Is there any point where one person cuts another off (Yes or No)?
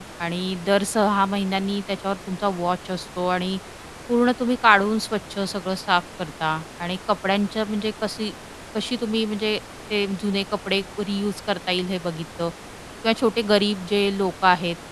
No